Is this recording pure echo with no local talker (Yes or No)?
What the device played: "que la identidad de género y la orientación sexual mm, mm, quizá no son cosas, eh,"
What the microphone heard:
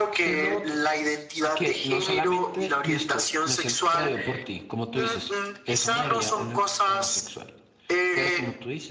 No